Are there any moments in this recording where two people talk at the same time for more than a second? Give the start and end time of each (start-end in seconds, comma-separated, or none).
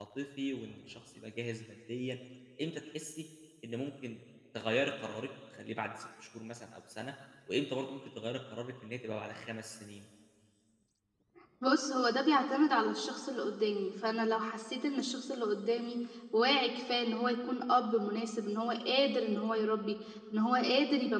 none